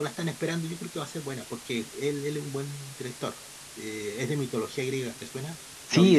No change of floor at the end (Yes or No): No